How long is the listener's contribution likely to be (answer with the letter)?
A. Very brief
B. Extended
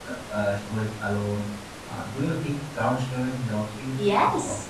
B